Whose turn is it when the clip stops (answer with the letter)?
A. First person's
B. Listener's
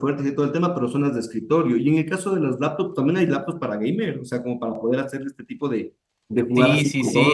B